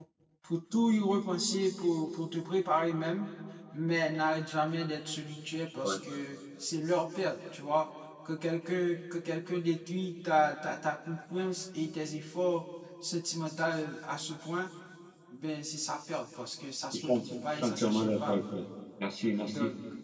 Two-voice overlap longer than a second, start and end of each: 16.9-18.4

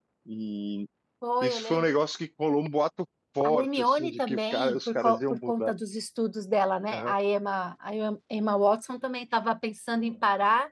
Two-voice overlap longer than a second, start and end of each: 3.4-5.7

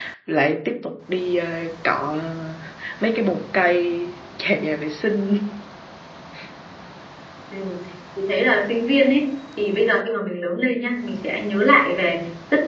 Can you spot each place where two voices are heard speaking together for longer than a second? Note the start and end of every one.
none

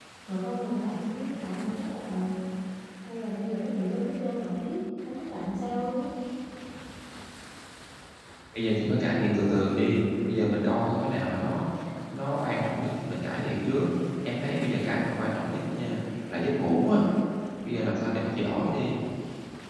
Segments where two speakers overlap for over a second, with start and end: none

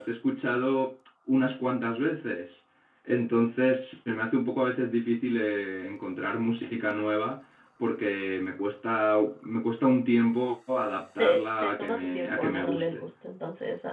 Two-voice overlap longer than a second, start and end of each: 11.2-13.0

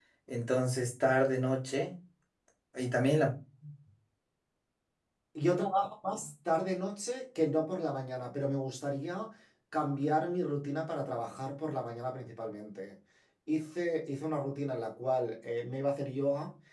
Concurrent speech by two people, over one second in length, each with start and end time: none

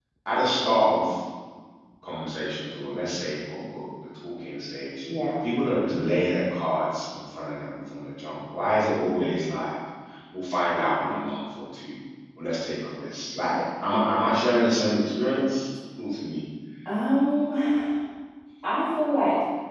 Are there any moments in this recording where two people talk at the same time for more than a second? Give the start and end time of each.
none

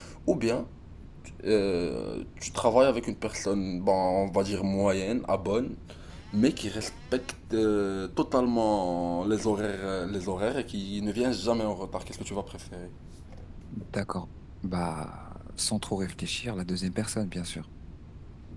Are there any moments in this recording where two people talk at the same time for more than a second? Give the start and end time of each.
none

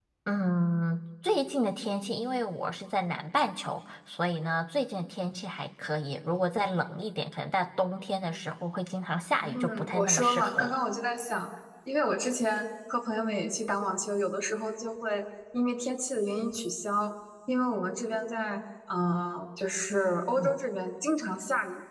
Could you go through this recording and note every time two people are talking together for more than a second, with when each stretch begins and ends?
9.4-10.8

